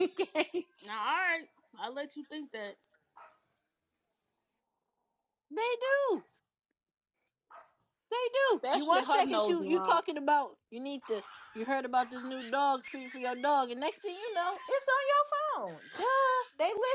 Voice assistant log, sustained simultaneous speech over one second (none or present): present